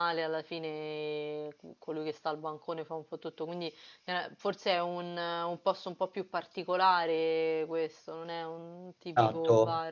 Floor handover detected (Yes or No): Yes